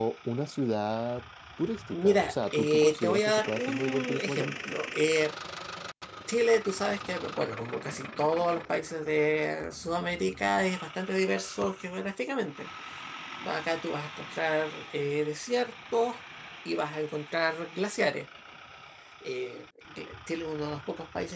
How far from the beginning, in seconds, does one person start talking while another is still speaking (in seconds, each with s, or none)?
1.9 s